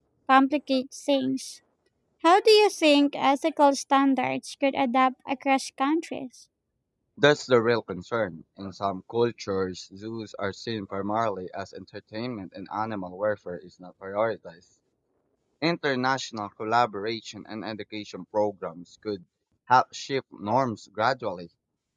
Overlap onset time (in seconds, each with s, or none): none